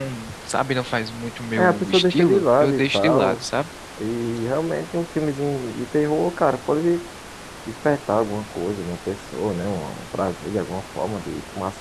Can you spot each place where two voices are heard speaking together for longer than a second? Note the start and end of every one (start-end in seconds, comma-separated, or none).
1.6-3.4